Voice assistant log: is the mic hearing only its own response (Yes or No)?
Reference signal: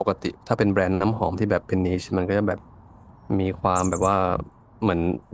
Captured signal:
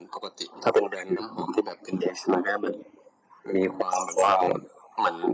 Yes